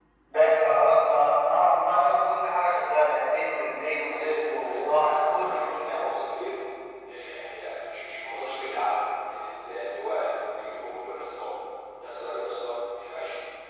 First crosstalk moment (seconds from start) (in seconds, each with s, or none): 4.1 s